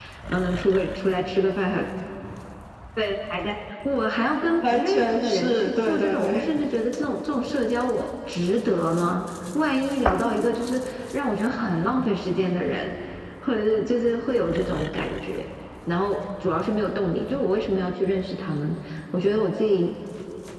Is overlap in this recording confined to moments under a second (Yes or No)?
No